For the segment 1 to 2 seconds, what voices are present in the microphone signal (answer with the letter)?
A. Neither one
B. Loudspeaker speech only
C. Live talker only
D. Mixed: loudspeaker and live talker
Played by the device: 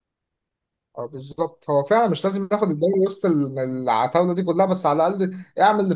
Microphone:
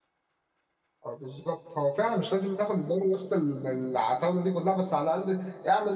B